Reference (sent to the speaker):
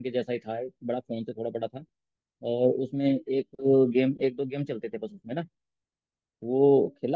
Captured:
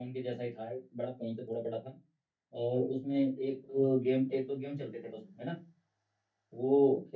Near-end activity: none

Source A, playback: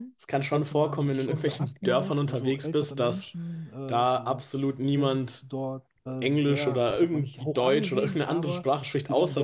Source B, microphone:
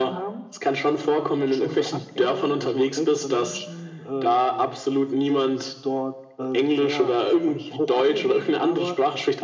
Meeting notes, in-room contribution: none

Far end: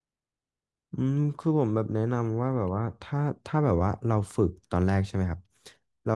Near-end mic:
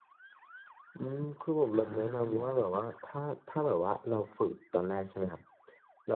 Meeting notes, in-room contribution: present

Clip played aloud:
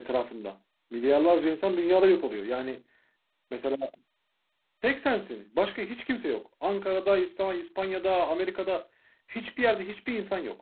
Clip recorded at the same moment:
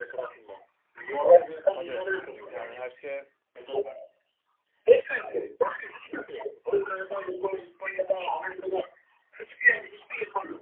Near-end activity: present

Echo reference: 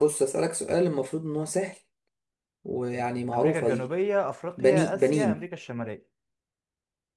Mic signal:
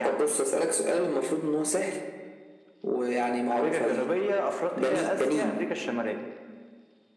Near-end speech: none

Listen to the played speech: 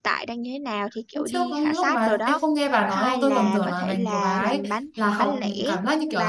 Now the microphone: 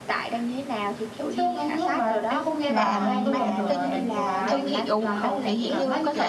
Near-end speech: present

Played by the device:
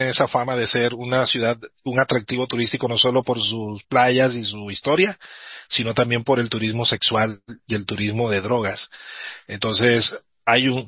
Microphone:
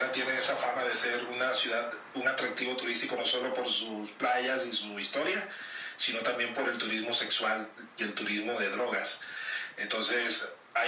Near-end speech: none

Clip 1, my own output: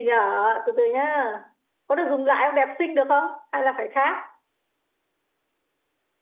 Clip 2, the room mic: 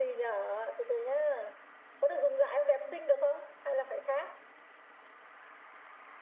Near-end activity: none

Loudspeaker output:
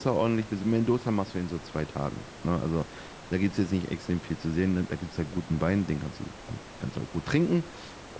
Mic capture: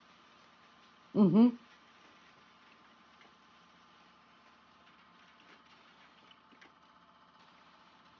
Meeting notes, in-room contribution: present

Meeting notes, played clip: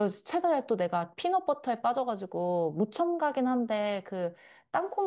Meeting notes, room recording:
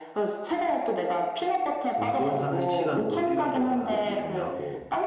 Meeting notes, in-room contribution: present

